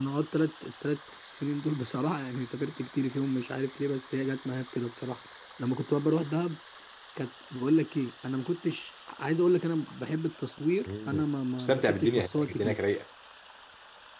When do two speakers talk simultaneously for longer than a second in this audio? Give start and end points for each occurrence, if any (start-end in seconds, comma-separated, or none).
11.6-12.8